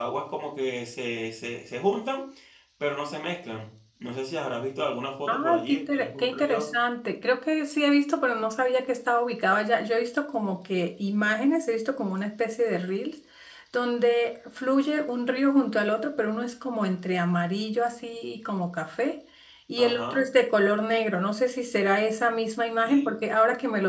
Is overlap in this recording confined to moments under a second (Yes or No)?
No